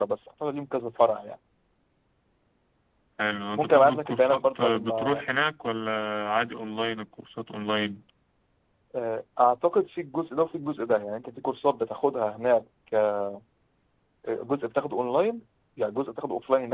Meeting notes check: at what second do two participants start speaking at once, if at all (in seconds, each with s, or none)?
3.6 s